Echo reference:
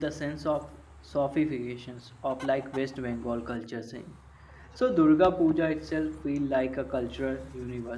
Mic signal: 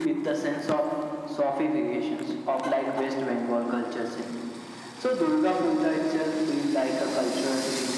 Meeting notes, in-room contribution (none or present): none